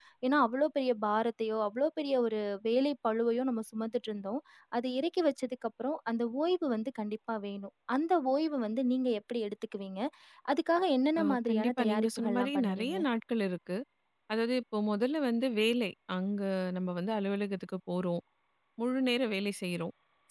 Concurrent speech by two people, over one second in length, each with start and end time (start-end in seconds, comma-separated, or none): 11.2-13.0